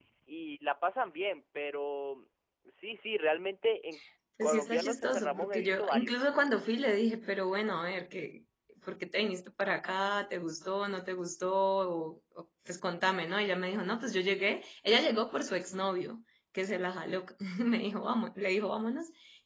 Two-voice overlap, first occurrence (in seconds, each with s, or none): 4.4 s